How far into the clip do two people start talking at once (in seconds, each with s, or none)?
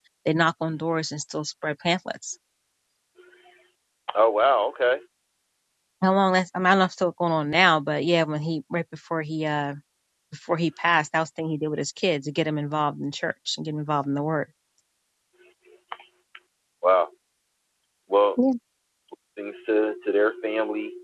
none